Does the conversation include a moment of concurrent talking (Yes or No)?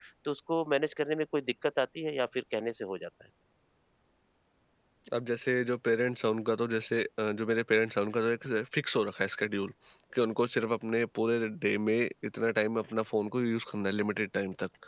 No